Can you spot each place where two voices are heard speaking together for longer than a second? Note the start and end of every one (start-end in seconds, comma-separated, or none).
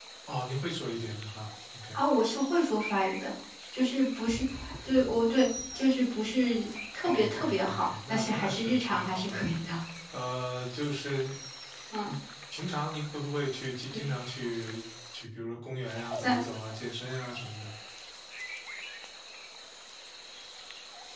7.0-9.4